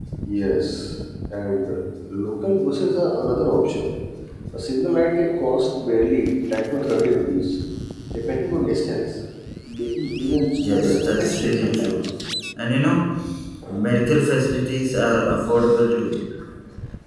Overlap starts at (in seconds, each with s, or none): 10.6 s